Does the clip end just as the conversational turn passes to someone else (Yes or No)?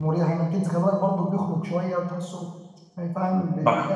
No